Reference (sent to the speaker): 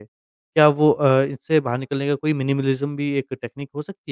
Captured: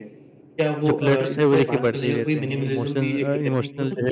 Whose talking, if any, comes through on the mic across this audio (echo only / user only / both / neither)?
both